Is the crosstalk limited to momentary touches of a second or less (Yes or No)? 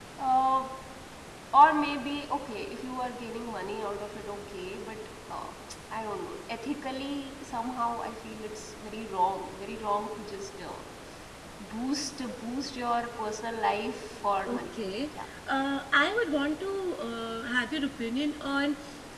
Yes